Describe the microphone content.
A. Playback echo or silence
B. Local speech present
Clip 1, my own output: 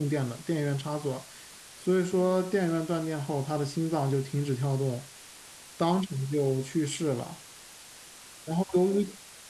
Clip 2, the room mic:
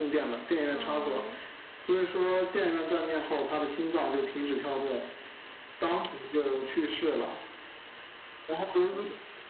B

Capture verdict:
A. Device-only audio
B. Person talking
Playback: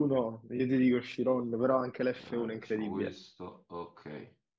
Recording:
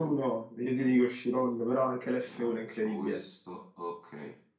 A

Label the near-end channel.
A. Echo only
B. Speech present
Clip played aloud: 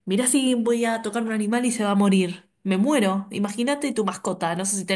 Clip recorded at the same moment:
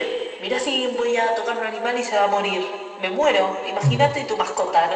B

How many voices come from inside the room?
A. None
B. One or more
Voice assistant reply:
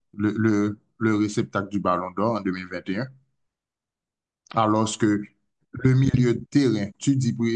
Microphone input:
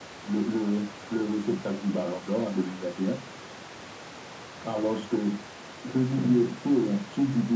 A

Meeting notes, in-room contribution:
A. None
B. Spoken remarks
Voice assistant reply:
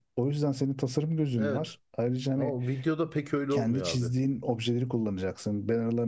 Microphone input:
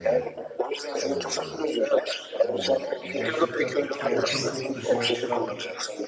B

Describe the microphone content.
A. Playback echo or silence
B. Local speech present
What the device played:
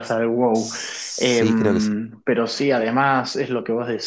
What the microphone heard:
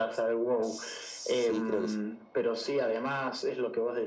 A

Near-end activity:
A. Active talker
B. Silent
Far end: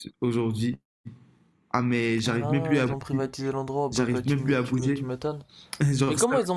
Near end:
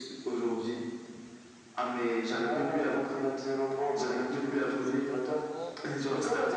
A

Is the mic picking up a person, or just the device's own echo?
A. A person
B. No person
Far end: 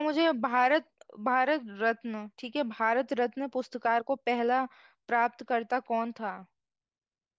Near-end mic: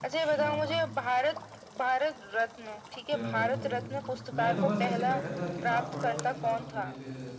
A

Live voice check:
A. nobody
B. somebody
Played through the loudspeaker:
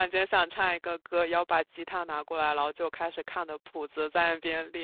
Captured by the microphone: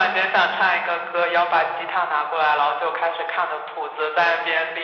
A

